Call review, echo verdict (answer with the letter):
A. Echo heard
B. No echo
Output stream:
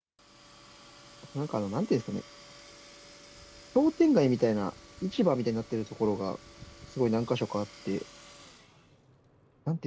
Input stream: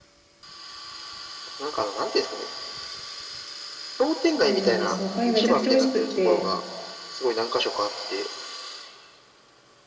A